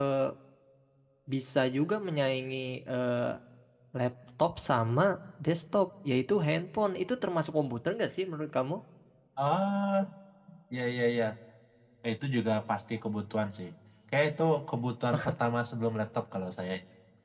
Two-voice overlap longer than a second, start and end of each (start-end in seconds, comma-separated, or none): none